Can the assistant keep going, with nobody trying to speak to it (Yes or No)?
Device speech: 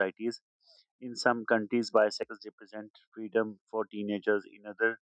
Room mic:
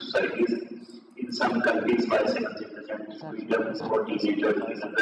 No